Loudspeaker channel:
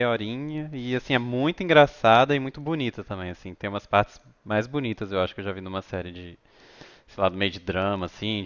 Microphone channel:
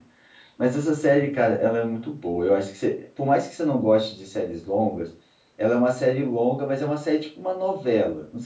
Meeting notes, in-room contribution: present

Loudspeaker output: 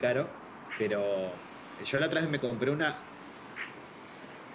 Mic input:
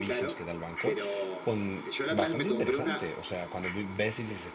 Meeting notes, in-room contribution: present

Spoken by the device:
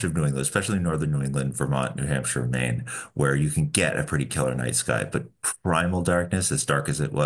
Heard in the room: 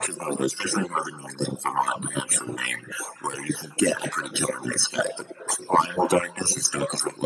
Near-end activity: none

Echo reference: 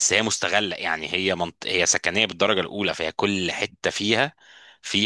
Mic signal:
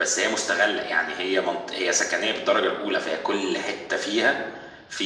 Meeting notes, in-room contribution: none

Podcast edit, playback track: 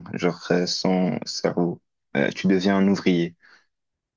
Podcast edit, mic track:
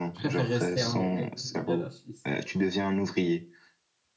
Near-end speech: present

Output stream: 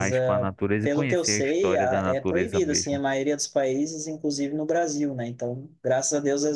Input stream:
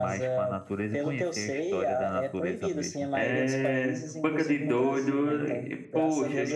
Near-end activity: present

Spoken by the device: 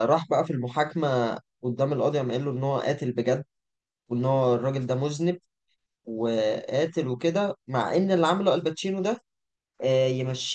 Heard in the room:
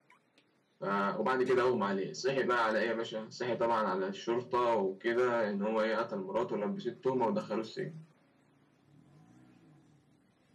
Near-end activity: present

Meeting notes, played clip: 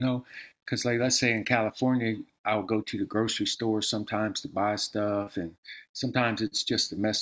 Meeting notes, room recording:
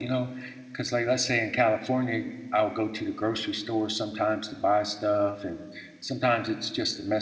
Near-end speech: none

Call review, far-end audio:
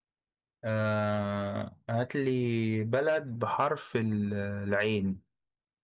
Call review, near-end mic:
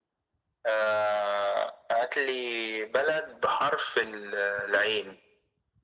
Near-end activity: none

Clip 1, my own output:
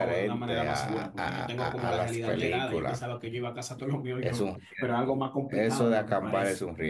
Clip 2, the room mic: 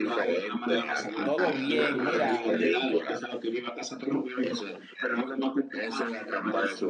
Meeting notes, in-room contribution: present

